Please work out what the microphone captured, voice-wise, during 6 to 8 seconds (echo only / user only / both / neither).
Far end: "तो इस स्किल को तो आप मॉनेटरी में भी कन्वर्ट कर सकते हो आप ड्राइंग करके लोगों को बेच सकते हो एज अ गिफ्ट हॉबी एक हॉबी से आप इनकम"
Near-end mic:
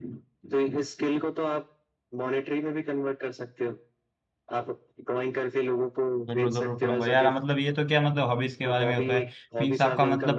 both